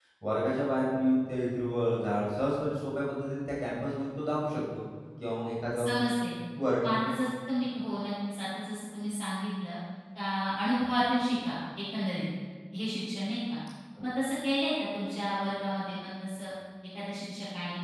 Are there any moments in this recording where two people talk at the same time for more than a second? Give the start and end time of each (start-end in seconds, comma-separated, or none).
none